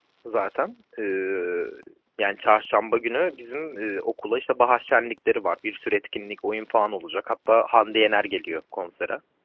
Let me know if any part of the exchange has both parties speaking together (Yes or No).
No